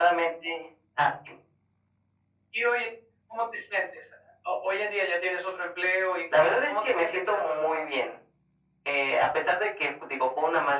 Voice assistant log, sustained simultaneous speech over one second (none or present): present